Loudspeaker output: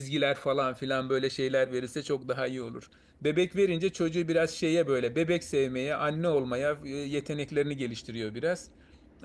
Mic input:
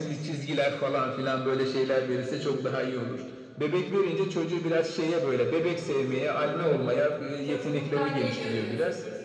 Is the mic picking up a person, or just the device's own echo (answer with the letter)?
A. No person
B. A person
B